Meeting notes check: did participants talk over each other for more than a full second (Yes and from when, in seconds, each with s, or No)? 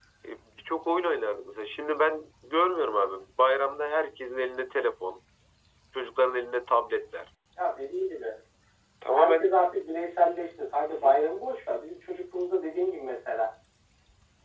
No